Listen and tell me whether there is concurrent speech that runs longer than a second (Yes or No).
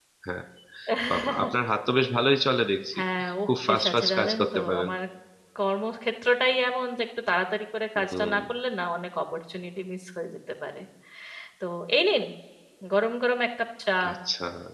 Yes